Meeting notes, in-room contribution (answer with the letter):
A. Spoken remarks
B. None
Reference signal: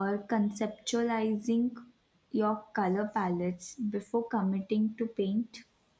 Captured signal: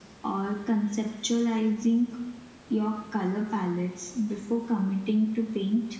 B